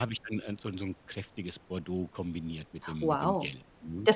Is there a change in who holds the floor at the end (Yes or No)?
Yes